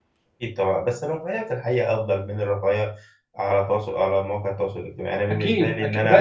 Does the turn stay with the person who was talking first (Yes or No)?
No